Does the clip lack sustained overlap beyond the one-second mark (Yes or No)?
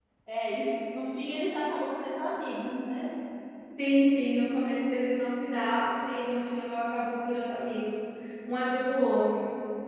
Yes